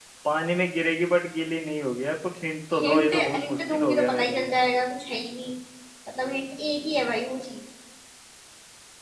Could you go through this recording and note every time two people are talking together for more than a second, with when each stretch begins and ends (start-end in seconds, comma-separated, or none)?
2.7-4.5